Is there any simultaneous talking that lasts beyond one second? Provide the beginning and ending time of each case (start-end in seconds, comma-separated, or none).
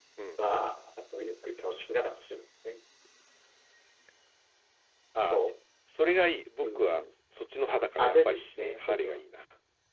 7.7-9.2